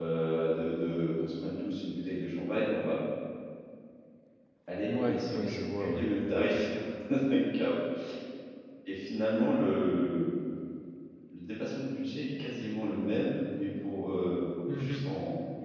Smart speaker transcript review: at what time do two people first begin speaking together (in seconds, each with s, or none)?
4.8 s